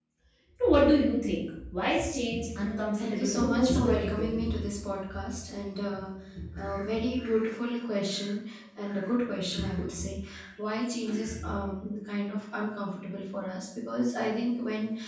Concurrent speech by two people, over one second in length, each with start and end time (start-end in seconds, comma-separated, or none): 3.0-4.3